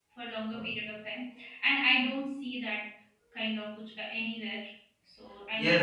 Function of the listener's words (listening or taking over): taking over